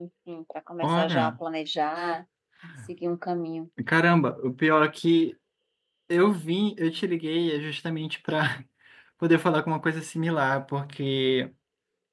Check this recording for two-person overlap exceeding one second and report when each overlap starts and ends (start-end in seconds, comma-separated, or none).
none